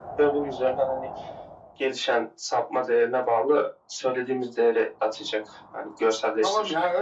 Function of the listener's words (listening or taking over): taking over